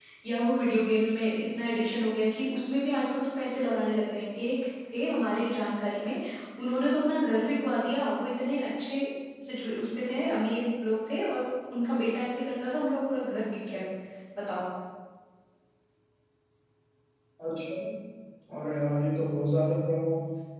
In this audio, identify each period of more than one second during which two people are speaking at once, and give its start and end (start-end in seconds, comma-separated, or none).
none